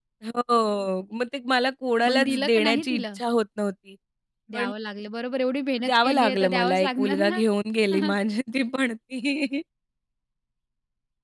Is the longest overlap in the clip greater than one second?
Yes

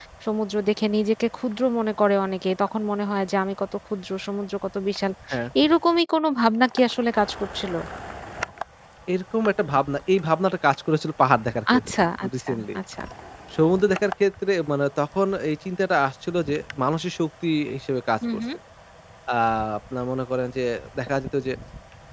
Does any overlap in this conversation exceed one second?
No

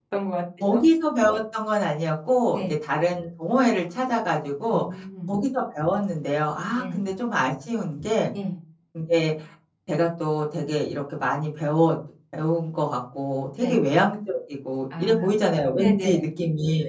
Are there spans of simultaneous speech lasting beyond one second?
No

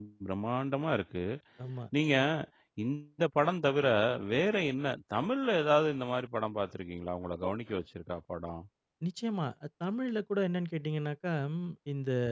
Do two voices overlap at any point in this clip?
No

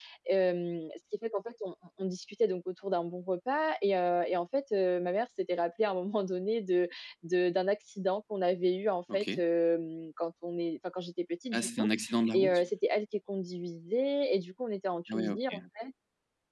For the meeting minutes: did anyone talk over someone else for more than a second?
No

